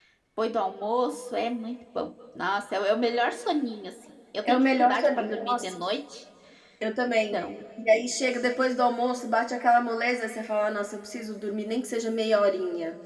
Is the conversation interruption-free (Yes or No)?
No